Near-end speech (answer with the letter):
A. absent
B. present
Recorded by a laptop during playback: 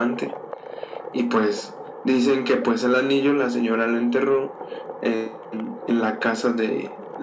A